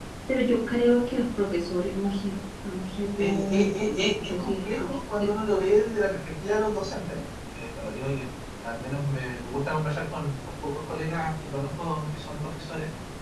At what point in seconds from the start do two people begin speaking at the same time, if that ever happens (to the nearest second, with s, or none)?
3 s